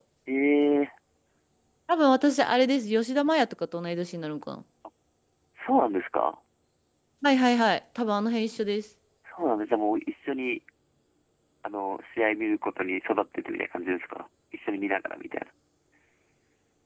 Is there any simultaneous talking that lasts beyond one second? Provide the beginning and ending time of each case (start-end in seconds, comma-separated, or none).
none